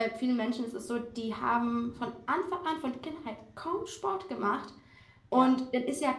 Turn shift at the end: No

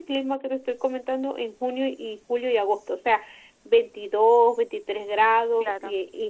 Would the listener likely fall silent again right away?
Yes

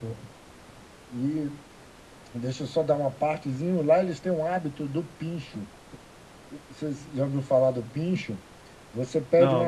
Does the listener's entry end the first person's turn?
No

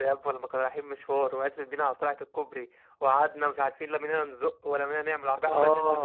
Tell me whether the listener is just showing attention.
No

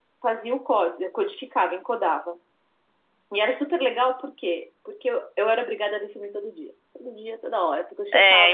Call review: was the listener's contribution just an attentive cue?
No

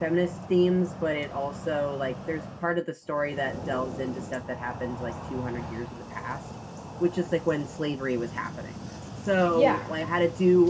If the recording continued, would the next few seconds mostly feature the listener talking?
No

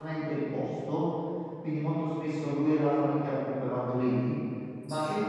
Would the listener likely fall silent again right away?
Yes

